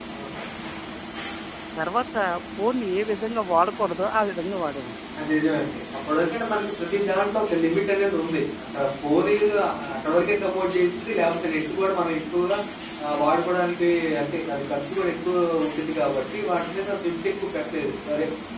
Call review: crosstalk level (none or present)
none